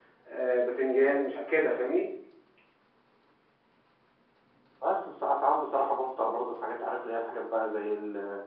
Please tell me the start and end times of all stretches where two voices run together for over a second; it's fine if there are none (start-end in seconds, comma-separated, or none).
none